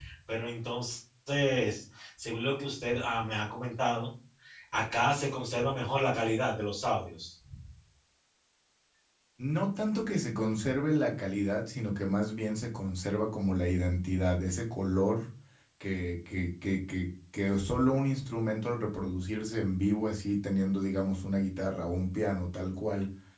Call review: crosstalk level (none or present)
none